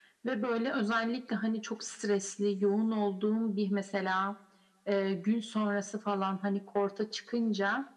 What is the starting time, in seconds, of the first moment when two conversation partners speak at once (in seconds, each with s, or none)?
none